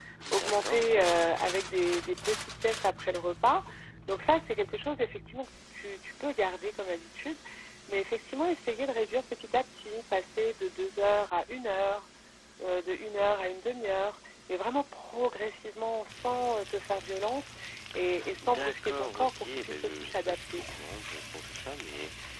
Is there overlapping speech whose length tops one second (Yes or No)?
Yes